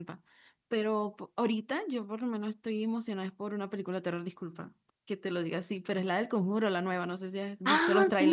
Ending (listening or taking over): taking over